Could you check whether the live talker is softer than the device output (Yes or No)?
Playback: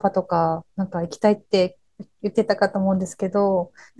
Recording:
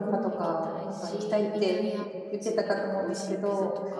Yes